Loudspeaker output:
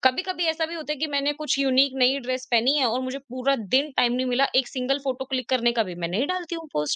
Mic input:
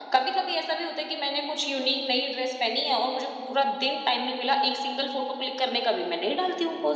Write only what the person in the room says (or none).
none